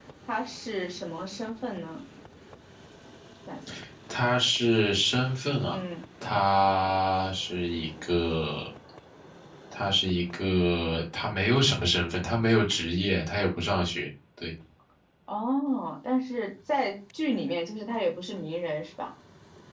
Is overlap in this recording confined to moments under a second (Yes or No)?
Yes